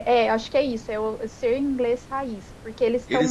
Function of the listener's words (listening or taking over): taking over